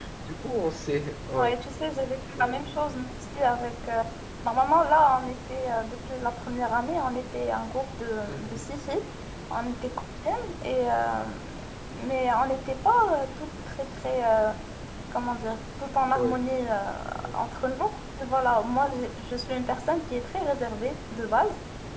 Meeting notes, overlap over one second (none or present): none